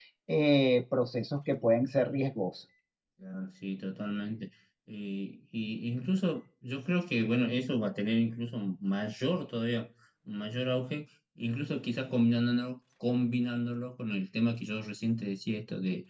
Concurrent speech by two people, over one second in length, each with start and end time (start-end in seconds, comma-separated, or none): none